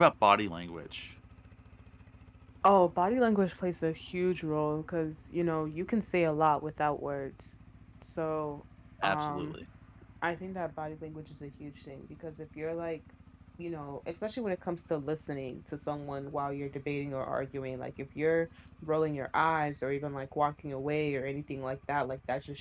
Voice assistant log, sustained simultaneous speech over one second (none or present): none